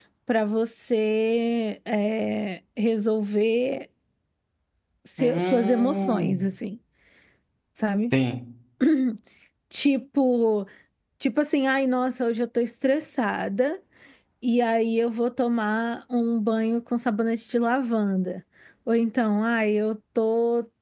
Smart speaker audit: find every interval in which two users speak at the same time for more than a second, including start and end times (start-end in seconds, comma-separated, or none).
5.2-6.4